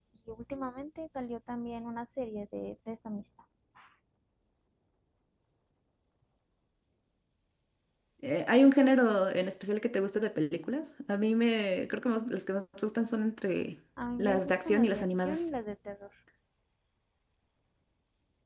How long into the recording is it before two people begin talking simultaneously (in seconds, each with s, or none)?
14.0 s